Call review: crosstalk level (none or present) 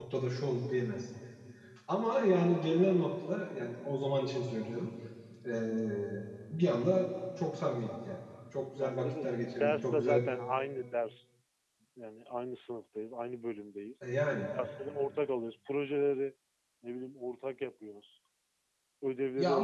present